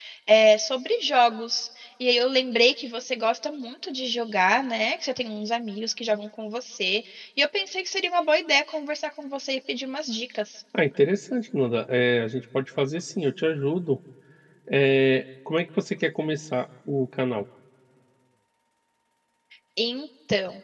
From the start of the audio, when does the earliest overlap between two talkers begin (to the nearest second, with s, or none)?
none